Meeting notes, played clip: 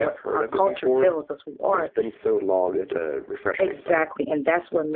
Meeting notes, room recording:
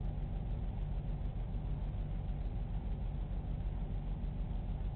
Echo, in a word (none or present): none